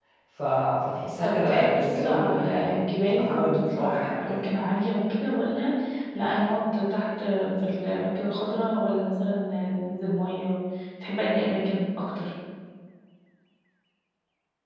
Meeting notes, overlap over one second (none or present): present